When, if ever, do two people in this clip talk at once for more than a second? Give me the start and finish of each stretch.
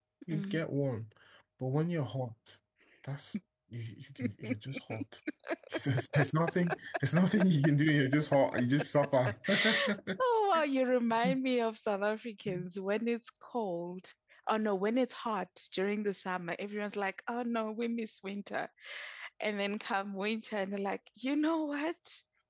none

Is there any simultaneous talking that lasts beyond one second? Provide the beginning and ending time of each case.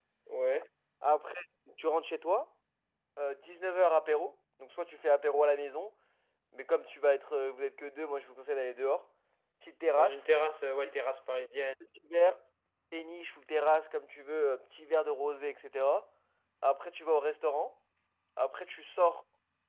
none

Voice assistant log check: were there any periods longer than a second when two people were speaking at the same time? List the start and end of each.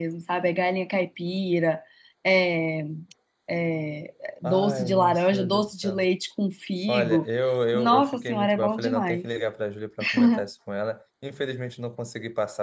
4.4-6.0, 7.7-9.3

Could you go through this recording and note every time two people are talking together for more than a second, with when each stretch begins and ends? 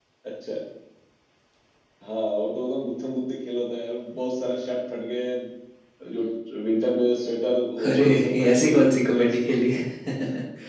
7.8-9.5

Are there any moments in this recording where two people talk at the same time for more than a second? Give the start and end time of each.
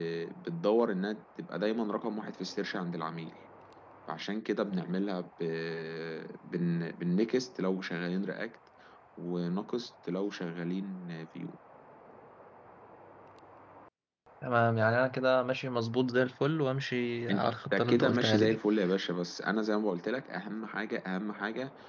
17.3-18.6

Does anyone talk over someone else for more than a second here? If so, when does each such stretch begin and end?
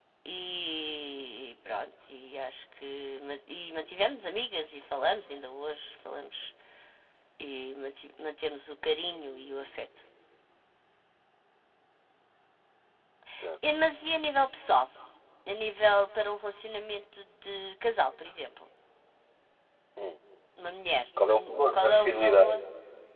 21.2-22.6

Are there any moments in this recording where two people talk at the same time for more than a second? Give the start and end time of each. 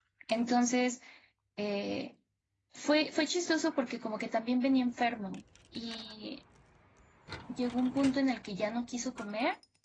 none

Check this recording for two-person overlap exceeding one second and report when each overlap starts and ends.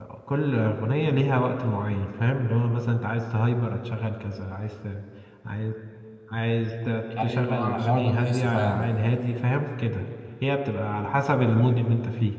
7.2-8.8

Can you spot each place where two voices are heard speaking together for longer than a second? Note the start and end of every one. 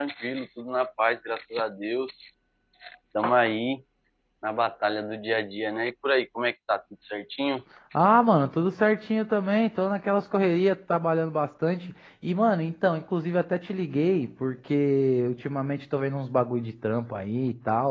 none

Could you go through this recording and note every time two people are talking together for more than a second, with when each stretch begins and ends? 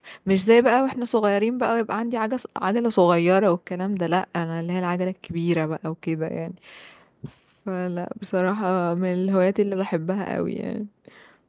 none

